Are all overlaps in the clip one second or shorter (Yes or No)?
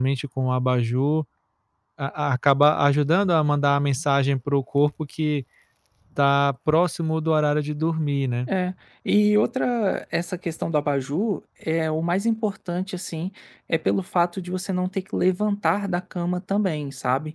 Yes